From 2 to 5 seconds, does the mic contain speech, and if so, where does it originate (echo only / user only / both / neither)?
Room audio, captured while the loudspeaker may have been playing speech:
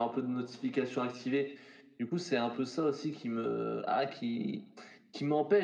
echo only